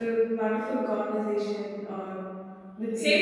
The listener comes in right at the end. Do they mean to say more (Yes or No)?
Yes